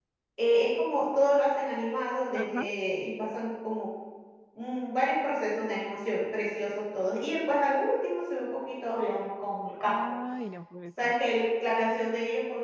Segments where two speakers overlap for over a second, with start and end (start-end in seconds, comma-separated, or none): none